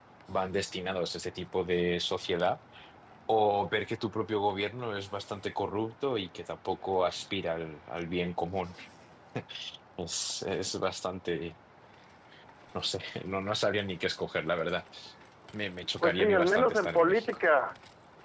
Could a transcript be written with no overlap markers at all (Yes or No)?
No